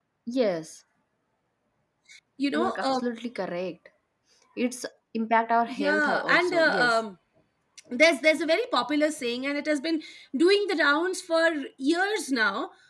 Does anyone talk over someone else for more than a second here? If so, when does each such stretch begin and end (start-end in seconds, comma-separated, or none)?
5.7-7.0